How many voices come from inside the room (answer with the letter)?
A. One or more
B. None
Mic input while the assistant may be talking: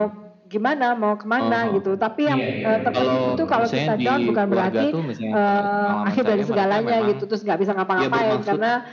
A